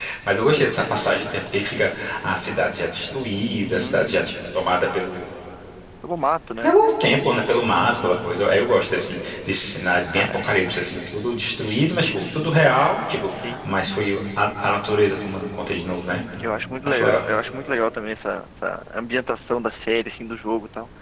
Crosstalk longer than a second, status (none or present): none